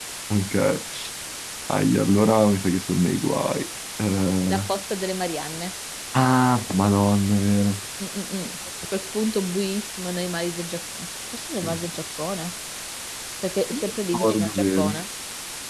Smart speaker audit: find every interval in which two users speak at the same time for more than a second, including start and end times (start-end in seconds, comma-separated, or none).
13.7-15.0